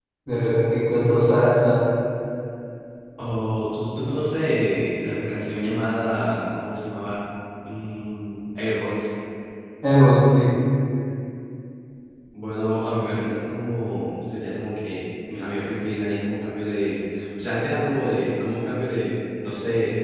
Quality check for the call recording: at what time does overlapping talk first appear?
none

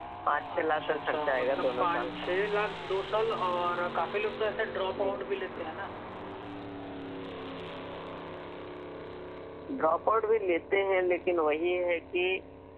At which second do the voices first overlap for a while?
0.5 s

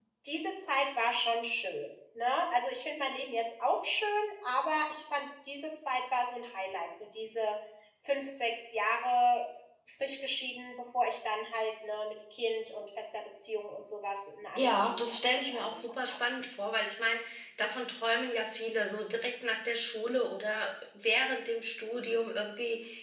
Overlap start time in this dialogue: 14.6 s

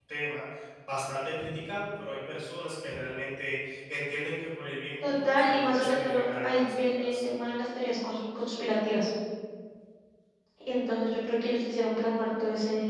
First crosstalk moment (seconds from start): 5.0 s

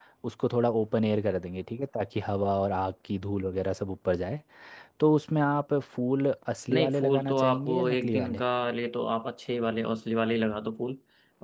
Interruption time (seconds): 6.7 s

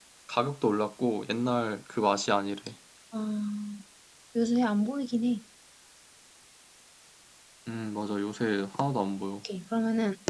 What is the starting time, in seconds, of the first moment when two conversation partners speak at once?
none

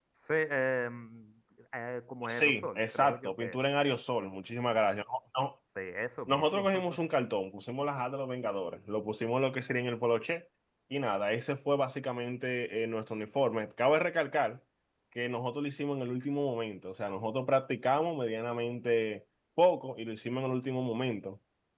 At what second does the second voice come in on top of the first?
2.3 s

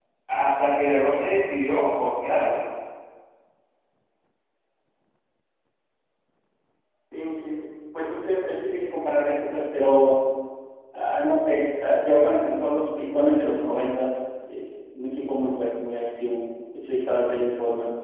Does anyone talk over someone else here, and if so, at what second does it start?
none

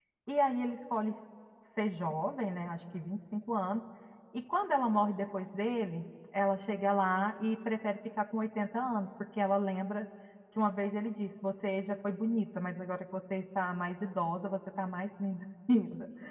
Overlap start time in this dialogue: none

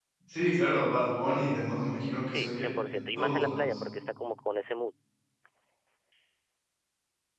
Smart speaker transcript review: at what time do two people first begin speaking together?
2.3 s

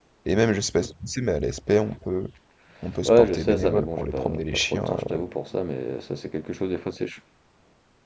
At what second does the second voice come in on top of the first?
3.0 s

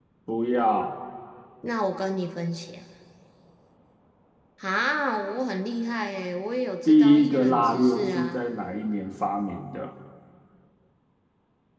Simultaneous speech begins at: 6.8 s

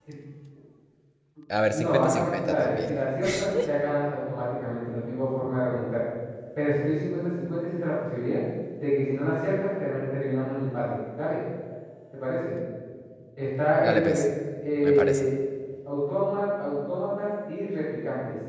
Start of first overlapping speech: 1.7 s

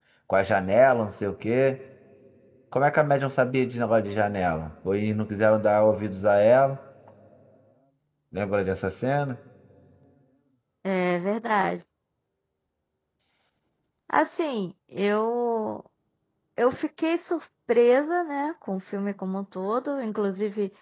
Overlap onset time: none

